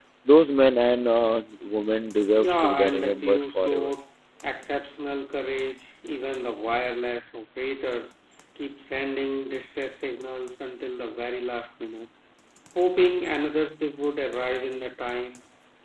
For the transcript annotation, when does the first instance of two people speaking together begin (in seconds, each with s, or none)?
2.4 s